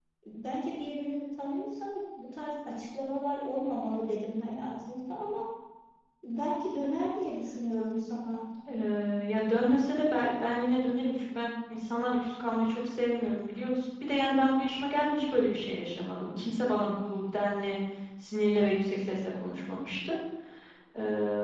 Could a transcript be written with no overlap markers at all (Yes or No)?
Yes